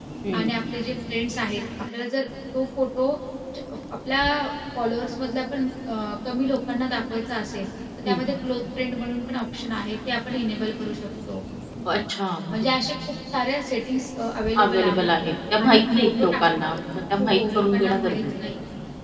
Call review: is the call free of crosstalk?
No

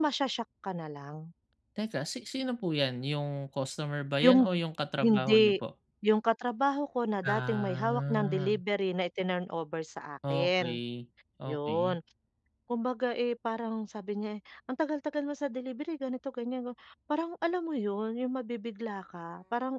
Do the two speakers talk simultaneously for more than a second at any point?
Yes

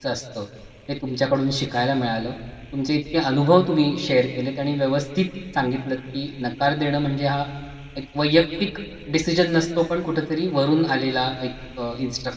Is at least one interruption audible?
No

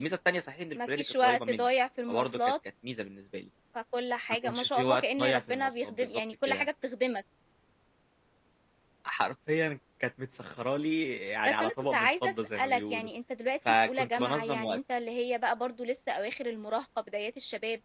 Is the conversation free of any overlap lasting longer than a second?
No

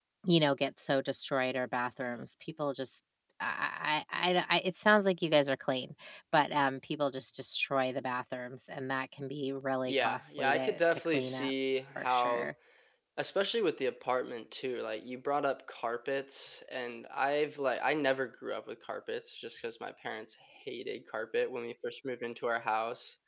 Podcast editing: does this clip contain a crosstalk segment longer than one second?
Yes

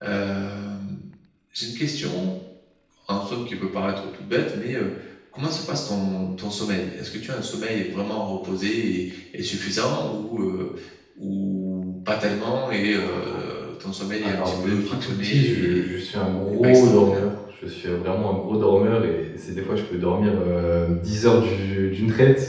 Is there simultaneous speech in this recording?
Yes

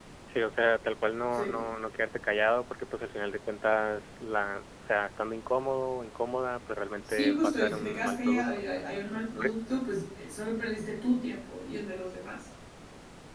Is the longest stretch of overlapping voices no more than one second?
No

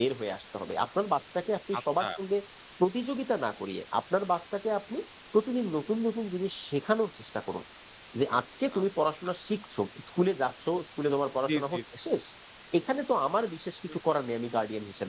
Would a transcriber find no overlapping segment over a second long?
Yes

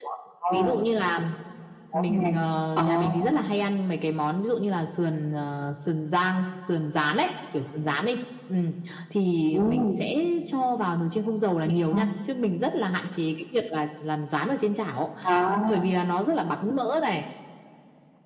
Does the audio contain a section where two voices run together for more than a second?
No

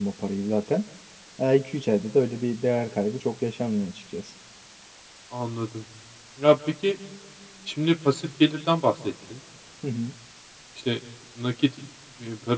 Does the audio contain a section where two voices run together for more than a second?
No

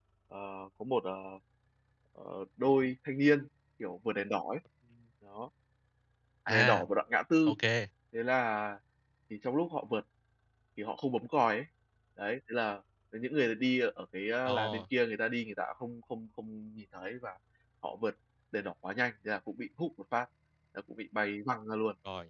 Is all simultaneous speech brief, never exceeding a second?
Yes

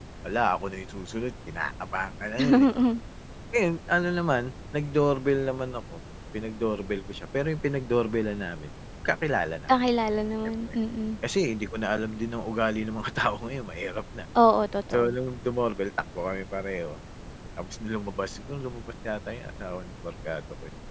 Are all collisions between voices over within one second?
Yes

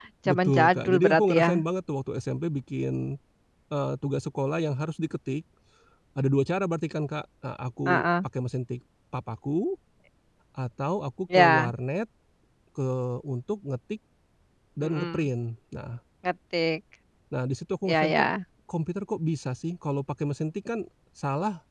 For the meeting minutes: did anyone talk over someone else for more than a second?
Yes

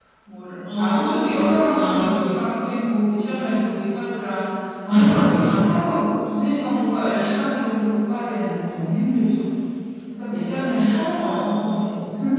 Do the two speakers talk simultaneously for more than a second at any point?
Yes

